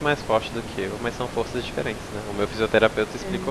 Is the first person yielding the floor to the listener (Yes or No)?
No